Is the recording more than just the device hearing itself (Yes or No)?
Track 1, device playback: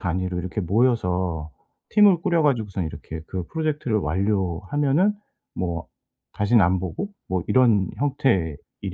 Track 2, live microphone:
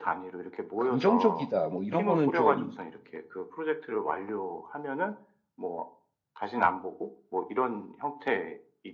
Yes